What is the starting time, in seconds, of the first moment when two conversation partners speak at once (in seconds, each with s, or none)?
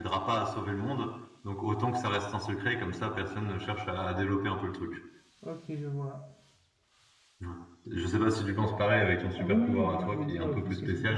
9.4 s